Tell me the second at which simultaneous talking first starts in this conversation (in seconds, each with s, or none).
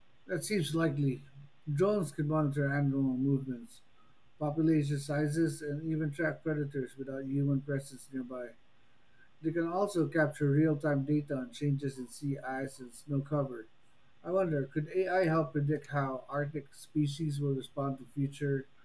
none